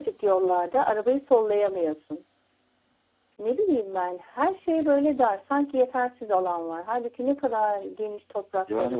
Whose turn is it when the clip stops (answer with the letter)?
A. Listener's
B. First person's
A